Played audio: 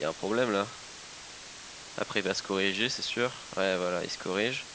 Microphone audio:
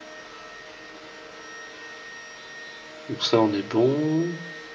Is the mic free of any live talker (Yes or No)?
No